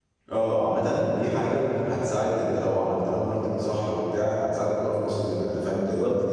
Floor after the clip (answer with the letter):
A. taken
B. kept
A